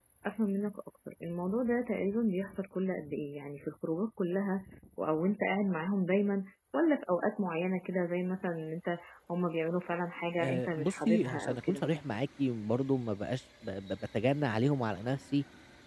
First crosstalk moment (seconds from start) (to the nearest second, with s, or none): 10 s